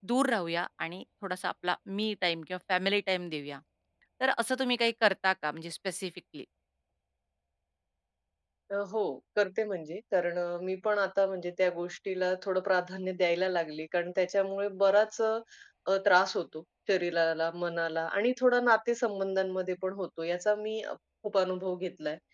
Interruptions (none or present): none